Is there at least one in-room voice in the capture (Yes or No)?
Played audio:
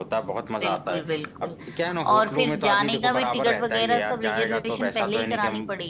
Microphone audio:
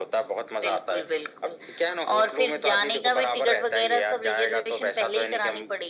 No